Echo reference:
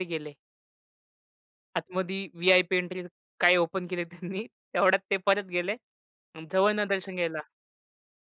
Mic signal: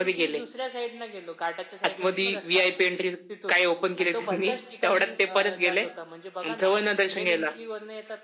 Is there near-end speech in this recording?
Yes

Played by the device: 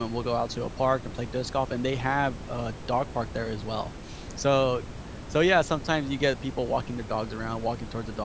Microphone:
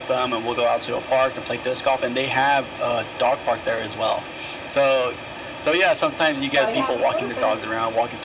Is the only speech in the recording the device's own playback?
No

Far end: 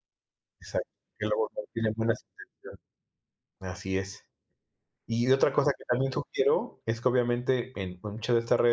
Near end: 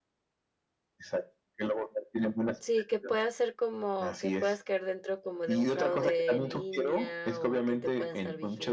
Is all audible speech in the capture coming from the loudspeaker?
No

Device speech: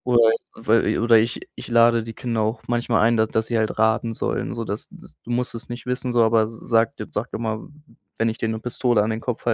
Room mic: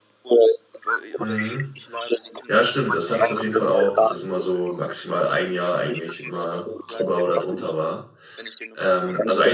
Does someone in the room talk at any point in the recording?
Yes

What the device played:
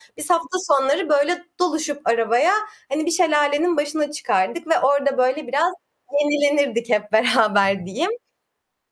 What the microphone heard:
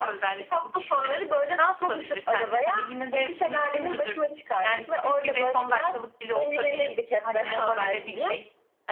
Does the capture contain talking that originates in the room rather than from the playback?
Yes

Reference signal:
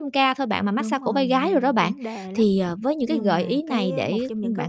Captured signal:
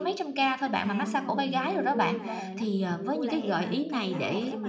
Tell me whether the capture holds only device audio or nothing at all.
No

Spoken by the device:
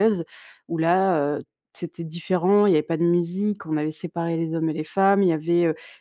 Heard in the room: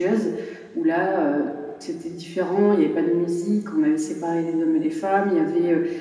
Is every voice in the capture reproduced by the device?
Yes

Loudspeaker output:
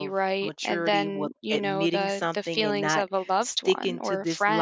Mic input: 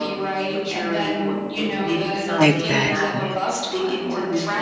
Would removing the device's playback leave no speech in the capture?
No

